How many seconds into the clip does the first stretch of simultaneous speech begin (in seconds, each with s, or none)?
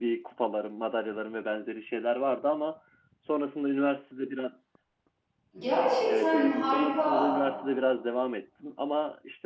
6.1 s